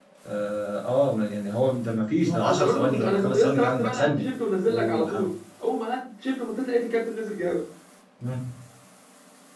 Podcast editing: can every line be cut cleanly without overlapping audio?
No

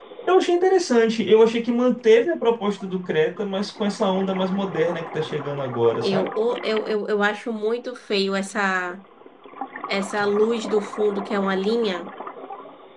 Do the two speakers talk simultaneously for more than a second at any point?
No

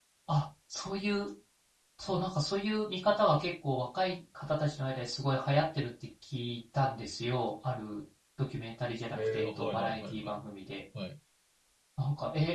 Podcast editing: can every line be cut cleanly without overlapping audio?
No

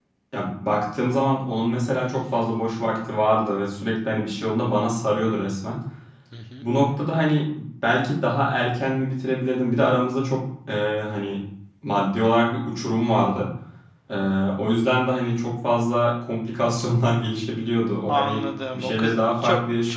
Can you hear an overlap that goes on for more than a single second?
Yes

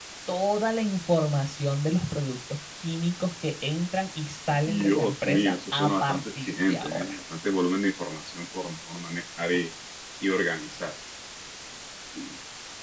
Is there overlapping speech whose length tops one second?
Yes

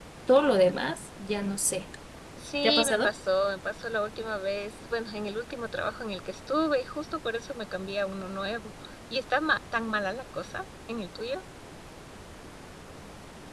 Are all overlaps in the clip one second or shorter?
Yes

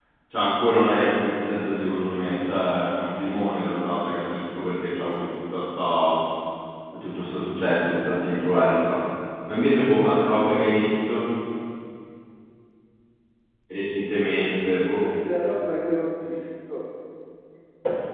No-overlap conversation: Yes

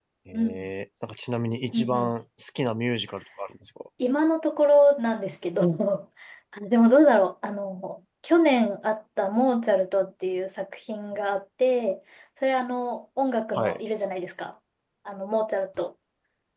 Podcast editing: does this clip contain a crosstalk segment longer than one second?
No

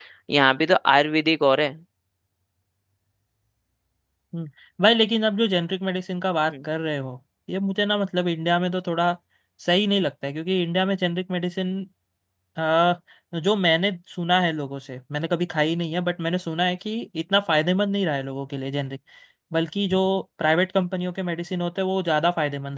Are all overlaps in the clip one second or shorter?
Yes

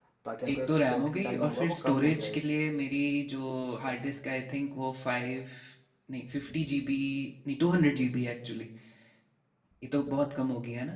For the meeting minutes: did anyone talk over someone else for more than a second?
Yes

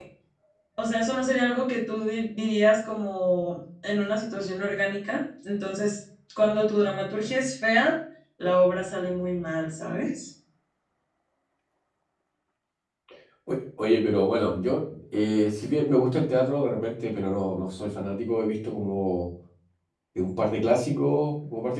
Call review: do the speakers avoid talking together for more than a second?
Yes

